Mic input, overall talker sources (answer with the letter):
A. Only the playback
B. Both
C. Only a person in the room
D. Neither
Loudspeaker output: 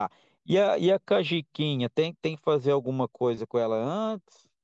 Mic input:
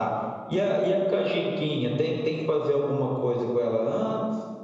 A